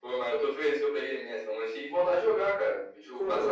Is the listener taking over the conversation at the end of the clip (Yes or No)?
Yes